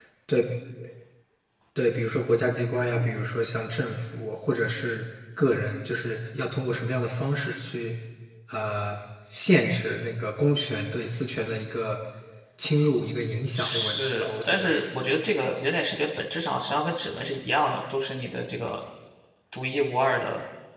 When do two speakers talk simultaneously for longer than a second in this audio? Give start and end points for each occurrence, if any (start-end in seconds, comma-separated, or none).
13.6-14.8